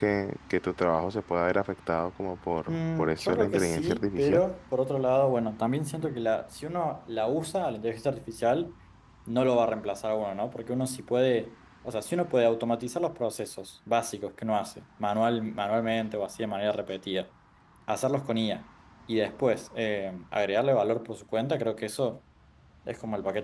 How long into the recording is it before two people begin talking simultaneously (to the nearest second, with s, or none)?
3 s